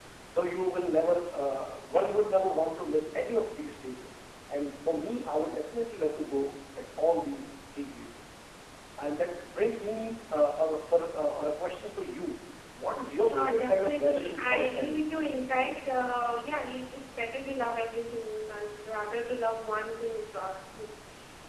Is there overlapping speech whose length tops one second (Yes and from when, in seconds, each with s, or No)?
Yes, from 13.2 s